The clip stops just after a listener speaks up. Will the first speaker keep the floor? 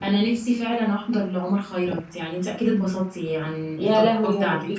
No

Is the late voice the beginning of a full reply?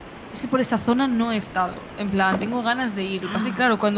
No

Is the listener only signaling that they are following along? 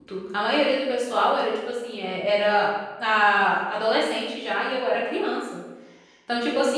Yes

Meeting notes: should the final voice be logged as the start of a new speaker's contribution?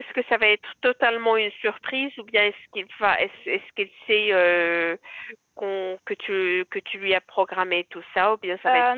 Yes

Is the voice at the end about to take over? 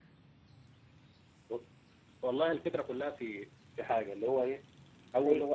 No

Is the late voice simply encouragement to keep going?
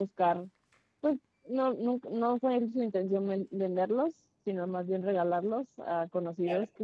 Yes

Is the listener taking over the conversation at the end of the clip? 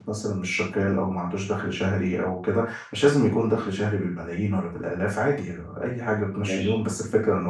No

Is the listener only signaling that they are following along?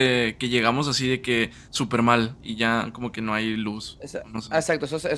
No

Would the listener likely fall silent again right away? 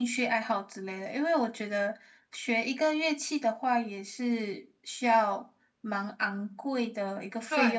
No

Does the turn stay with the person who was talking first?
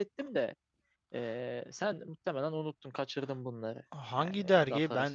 No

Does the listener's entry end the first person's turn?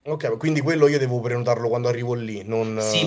Yes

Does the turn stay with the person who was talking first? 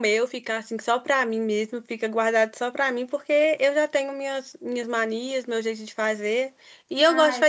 Yes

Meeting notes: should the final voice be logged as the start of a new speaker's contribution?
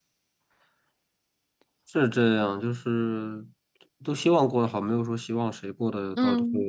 Yes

